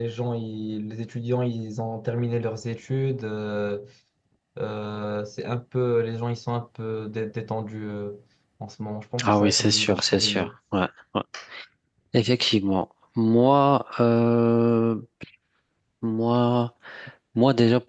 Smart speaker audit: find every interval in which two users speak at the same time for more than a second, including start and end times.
9.2-10.5

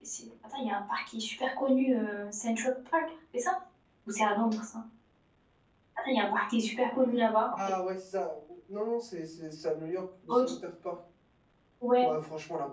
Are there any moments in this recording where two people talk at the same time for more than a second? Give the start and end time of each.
none

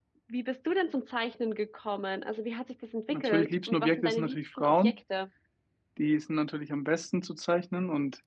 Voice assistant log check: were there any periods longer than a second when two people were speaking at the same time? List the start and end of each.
3.1-5.0

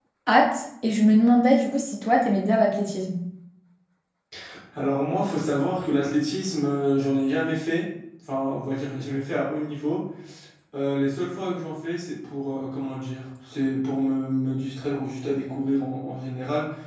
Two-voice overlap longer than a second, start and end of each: none

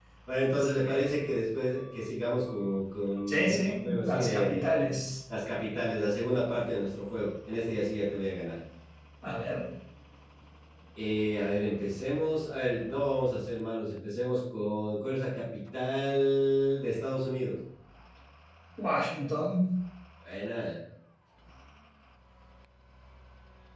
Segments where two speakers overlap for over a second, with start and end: 3.3-4.7

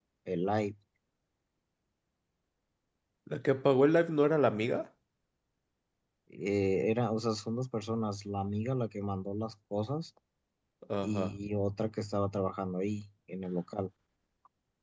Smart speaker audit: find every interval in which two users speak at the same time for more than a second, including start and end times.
none

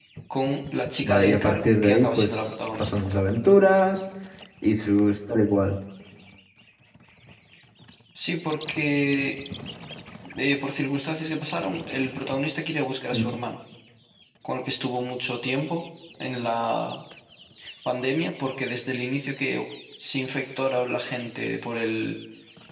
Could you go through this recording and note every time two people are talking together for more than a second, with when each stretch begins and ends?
1.0-3.0

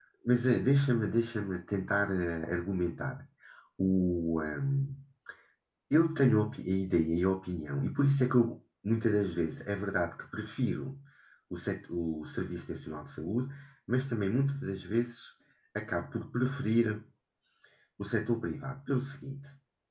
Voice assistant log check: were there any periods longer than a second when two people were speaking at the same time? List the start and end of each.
none

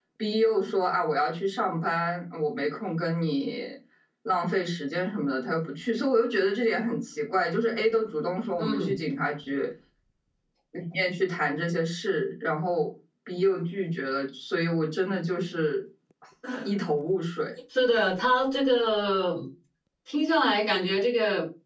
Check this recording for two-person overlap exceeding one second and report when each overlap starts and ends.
none

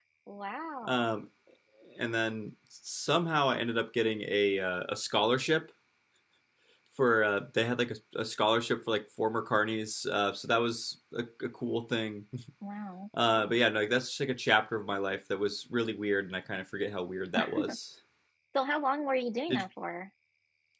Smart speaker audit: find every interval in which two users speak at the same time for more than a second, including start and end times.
none

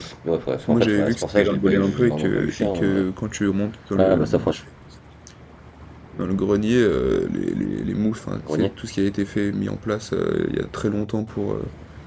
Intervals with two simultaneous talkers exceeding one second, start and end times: 0.6-3.0

